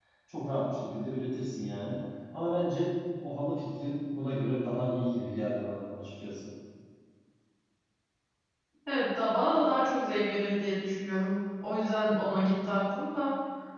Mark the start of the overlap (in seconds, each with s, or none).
none